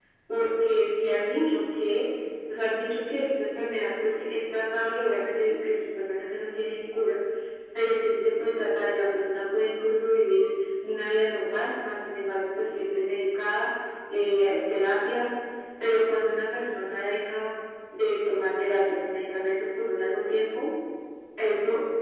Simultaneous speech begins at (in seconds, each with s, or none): none